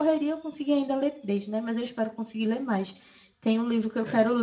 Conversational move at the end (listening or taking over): listening